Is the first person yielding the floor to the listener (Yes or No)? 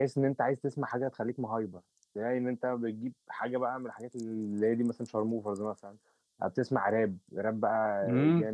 Yes